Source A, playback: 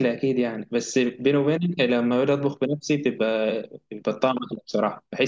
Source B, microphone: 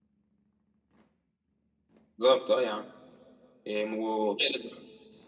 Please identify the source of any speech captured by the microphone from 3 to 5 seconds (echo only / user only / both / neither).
user only